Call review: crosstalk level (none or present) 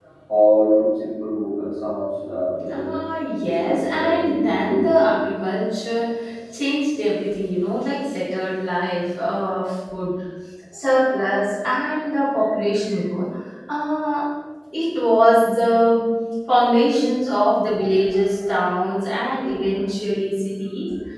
present